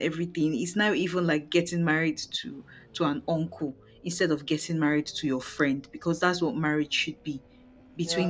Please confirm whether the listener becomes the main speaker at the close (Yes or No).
No